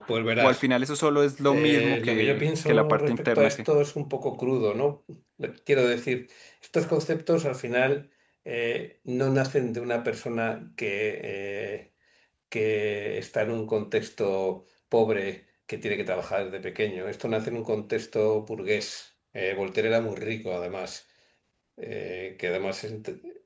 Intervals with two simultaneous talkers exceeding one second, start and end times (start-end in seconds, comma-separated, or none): 1.5-3.5